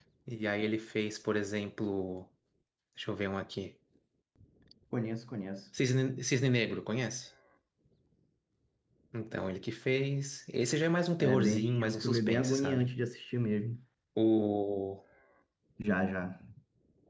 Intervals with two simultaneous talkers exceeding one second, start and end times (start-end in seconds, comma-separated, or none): 11.2-12.9